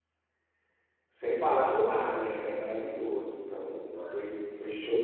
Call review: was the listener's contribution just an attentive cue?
Yes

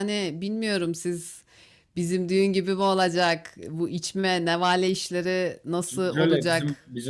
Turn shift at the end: Yes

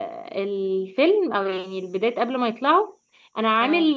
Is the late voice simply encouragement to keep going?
Yes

